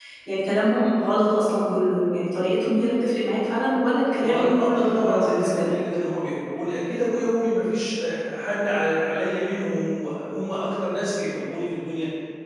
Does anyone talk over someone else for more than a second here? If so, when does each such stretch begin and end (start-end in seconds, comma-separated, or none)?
4.2-5.7